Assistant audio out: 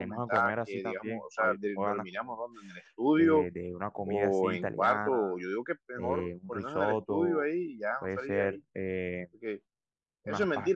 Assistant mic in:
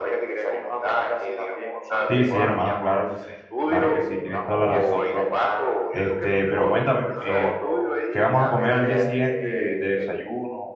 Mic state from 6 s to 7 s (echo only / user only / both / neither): both